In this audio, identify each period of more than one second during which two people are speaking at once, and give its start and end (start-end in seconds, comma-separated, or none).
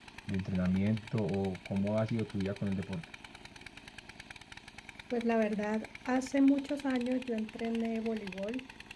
none